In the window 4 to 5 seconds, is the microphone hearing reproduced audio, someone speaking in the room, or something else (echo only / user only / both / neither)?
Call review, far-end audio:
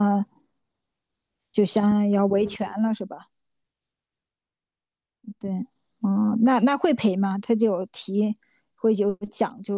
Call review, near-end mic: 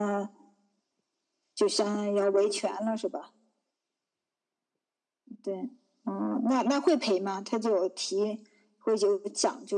neither